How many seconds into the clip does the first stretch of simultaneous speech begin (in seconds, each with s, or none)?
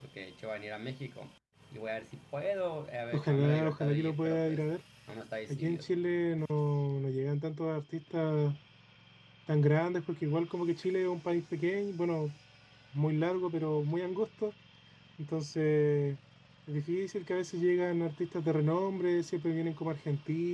3.1 s